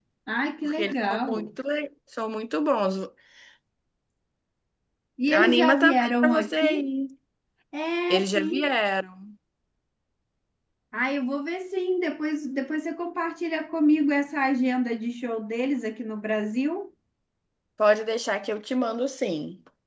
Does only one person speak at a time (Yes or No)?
No